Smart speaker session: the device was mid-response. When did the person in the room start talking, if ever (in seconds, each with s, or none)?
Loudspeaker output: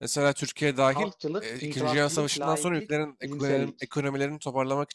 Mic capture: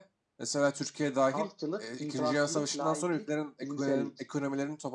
none